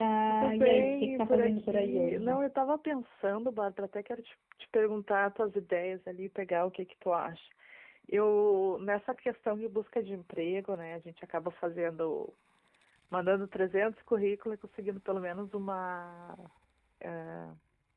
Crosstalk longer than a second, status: present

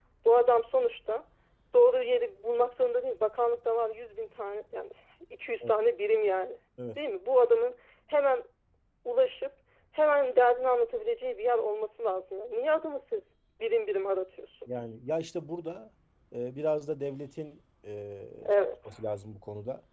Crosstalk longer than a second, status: none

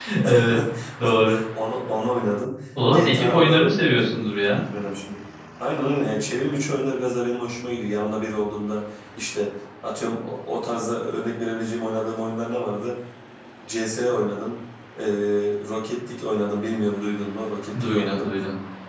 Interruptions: present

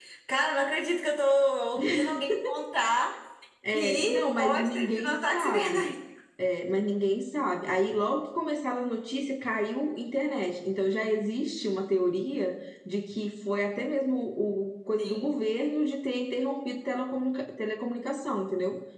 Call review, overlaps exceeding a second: present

